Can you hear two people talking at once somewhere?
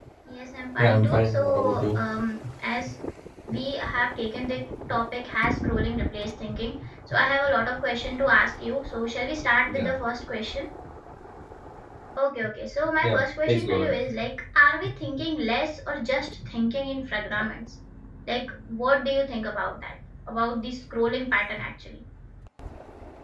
Yes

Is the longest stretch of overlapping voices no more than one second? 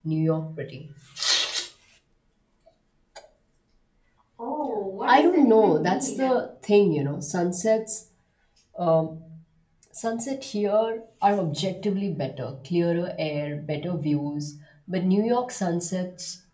No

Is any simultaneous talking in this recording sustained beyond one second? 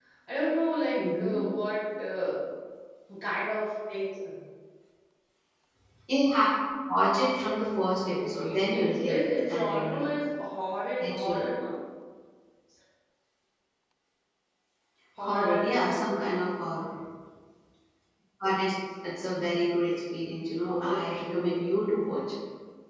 Yes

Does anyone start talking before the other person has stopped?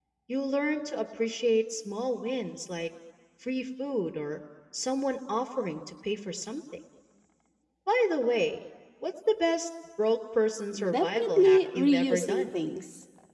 Yes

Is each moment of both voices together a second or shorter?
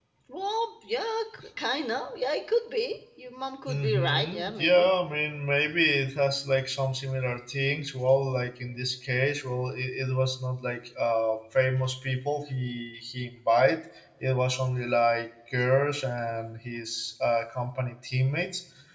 No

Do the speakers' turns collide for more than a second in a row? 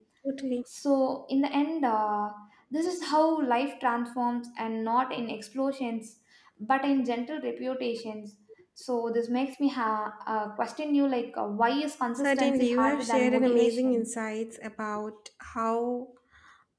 Yes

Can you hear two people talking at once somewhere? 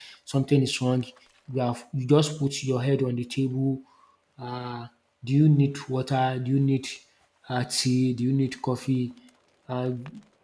No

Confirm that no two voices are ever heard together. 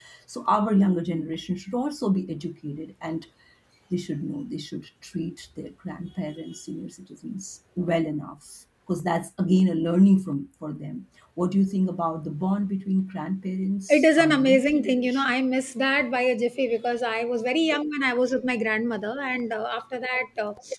No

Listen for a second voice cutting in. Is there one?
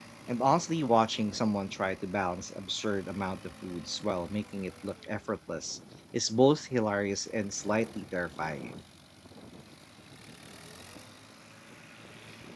No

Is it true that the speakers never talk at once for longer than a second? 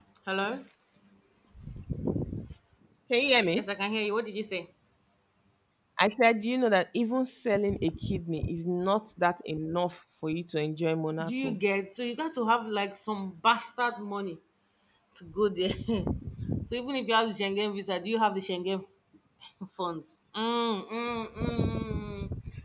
Yes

